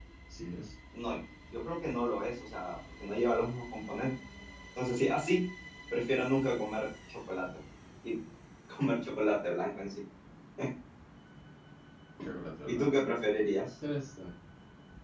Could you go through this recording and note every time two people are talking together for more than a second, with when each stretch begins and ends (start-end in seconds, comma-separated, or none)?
none